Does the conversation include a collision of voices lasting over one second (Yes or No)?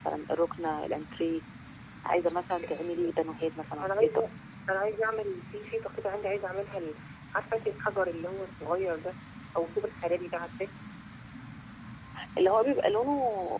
No